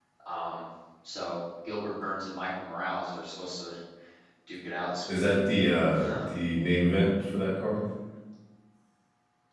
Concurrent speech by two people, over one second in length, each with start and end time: none

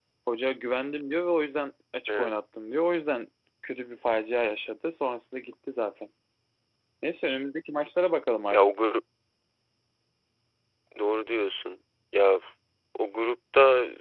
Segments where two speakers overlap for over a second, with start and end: none

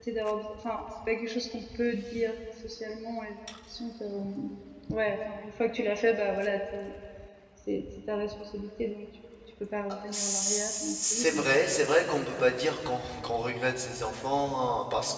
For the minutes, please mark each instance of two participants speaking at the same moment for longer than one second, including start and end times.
10.1-11.4

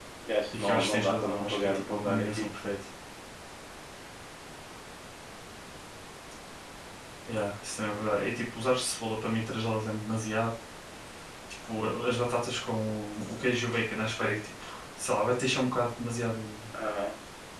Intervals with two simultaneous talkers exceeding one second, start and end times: 0.6-2.5

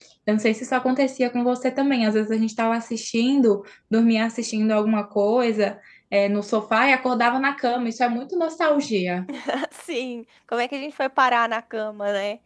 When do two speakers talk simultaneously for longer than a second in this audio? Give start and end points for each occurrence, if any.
none

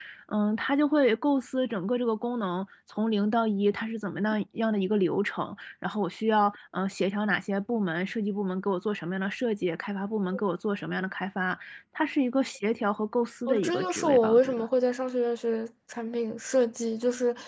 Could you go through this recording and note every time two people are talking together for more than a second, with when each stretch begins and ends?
13.5-14.7

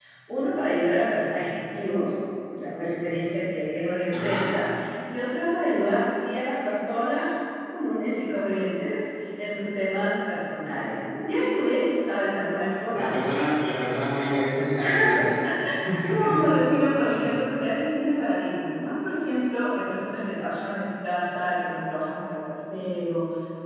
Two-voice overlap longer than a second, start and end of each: none

